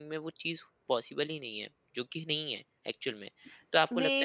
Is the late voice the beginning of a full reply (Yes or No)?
No